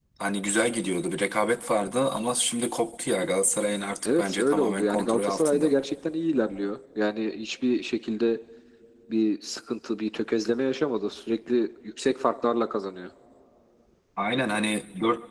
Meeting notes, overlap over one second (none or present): present